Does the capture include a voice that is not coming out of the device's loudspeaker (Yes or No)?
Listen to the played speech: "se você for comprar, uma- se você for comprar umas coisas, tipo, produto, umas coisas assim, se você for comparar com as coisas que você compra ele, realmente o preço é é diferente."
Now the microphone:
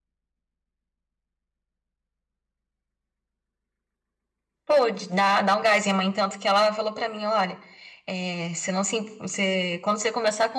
Yes